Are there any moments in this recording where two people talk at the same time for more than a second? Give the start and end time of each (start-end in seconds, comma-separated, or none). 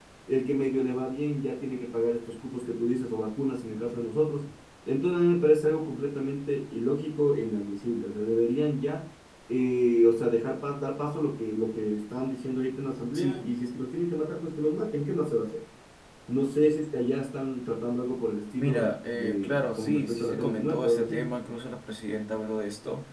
18.6-21.3